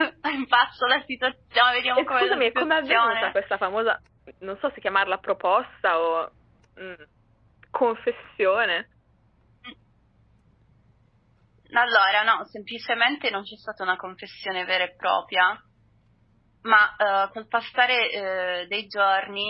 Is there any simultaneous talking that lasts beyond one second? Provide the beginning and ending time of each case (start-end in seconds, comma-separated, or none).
2.0-3.3